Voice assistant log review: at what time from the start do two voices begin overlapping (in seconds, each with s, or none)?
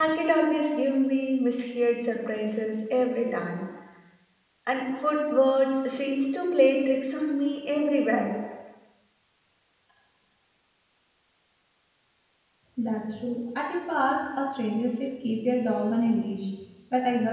none